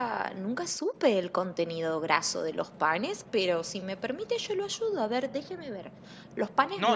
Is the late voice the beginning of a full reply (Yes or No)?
Yes